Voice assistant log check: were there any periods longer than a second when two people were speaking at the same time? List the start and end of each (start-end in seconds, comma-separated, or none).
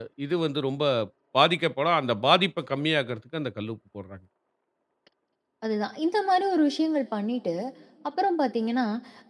none